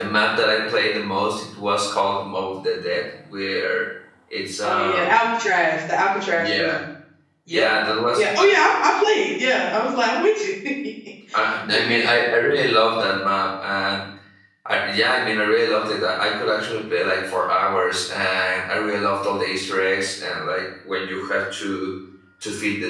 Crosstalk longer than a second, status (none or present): none